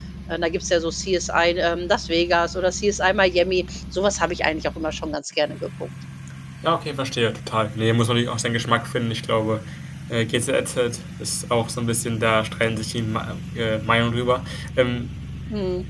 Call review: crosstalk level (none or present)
none